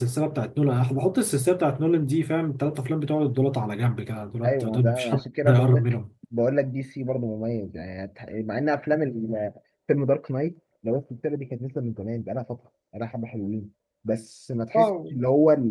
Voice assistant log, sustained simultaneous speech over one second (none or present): present